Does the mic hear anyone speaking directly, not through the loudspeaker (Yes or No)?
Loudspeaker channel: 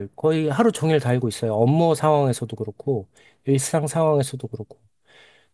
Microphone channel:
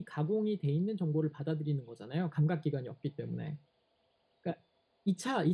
Yes